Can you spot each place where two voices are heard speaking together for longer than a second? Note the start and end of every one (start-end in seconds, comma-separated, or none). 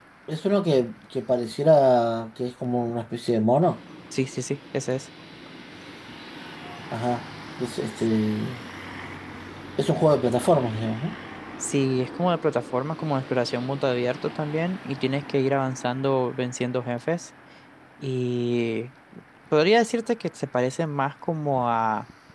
none